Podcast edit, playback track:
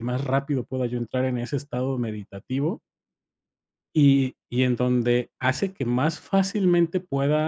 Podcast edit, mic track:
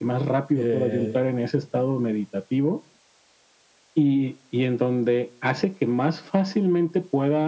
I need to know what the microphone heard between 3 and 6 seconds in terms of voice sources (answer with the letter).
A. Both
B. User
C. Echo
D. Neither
C